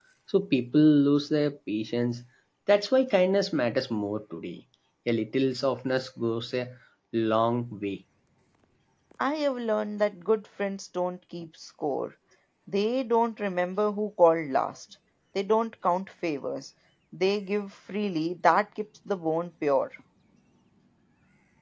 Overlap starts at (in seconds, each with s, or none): none